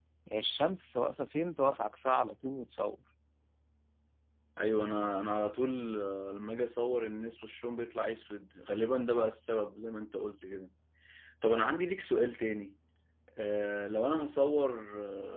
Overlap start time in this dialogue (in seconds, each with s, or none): none